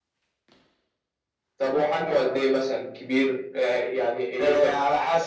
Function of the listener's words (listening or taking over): taking over